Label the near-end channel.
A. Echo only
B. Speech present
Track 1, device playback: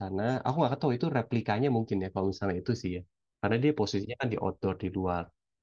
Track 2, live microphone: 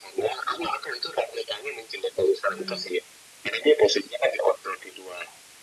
B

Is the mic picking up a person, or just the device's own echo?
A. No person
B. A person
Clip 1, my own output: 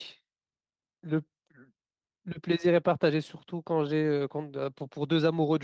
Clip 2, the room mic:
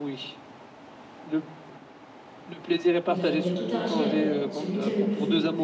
B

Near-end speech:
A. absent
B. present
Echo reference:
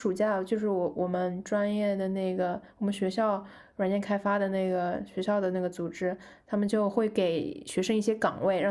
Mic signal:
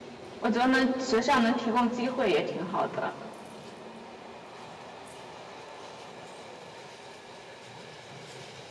B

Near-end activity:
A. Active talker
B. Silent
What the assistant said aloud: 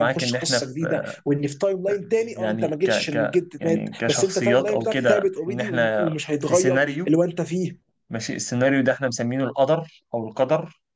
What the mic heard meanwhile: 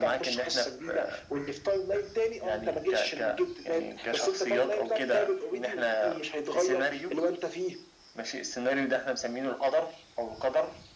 B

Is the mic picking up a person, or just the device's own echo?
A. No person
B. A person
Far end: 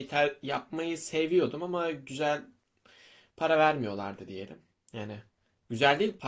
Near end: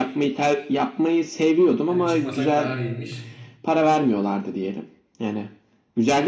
B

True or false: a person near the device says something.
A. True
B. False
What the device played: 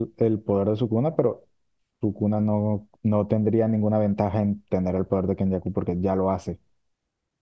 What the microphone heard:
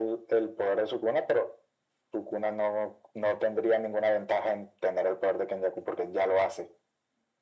B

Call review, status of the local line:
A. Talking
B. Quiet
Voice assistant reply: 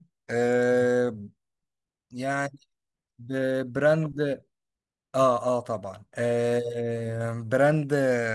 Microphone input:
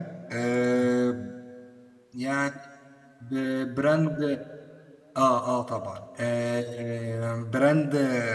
B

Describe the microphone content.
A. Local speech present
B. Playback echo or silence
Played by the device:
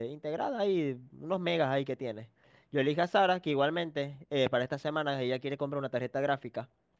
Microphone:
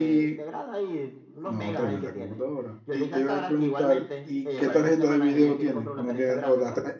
A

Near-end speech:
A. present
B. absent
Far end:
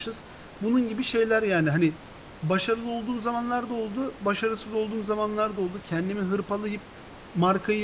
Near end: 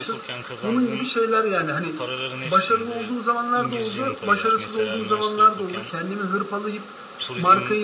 A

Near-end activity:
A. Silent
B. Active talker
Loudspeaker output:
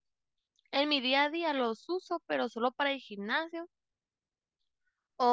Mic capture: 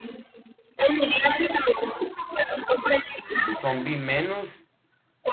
B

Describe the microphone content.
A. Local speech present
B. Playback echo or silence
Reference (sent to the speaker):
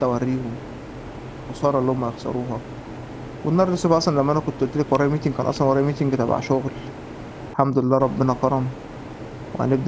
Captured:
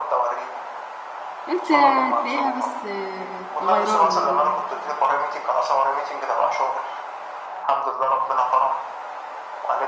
A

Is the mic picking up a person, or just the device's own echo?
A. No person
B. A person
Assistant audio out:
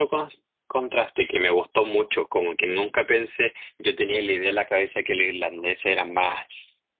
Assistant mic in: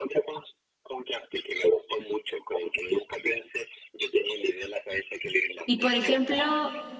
B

